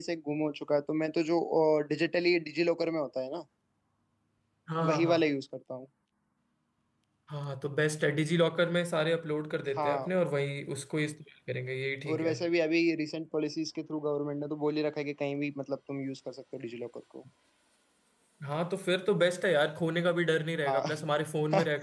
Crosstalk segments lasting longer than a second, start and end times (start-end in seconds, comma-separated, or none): none